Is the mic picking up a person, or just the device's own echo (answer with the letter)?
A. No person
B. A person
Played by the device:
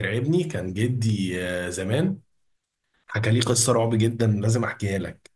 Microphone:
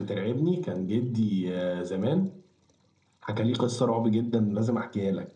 A